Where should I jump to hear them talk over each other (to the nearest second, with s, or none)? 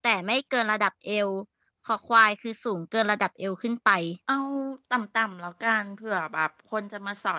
none